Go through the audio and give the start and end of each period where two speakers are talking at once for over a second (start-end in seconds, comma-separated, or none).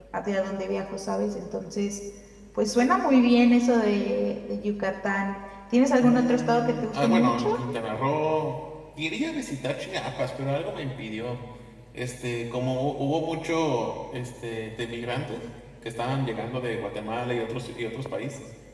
6.0-7.5